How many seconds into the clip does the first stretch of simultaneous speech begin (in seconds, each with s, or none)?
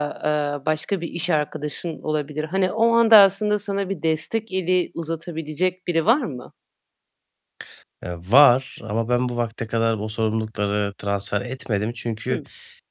none